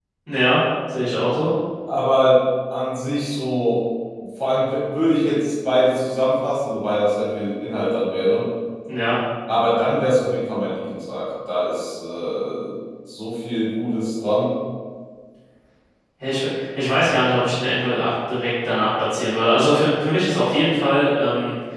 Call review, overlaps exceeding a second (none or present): none